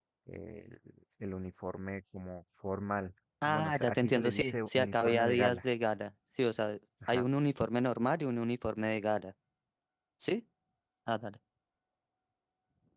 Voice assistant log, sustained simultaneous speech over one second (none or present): present